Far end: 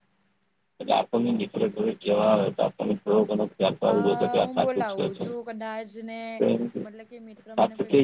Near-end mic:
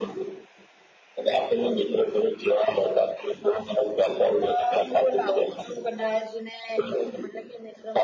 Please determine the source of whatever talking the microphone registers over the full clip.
echo only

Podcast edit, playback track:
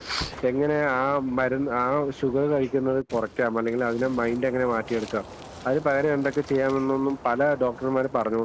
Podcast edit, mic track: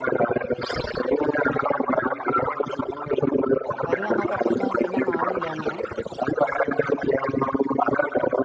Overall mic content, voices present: both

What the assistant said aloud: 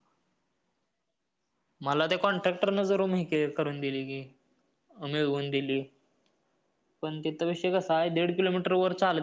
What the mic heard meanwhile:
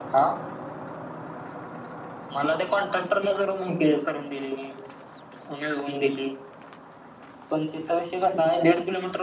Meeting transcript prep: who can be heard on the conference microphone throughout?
echo only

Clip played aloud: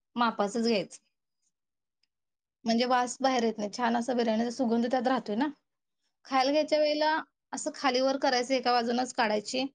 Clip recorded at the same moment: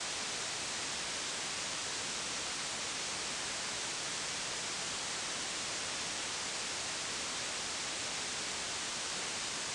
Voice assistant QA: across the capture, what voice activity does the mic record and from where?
neither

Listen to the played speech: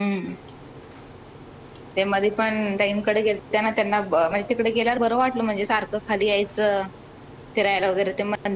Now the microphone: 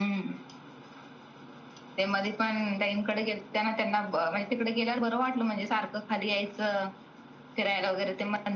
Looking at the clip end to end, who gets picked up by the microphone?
echo only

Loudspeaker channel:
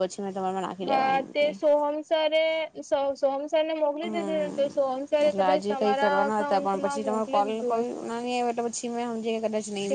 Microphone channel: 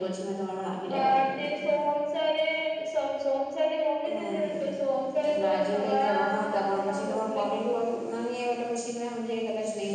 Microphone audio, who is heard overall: echo only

